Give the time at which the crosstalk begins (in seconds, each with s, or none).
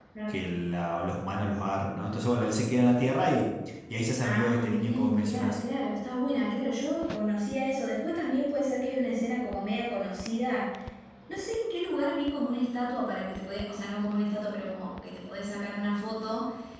4.2 s